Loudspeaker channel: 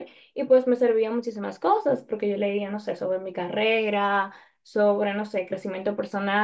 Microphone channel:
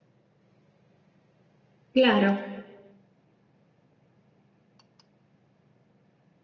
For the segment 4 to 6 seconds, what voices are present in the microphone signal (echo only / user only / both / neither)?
neither